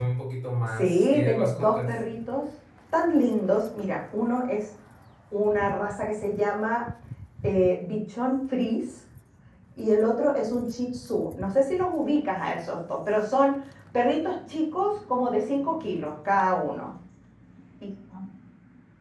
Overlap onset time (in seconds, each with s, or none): 0.8 s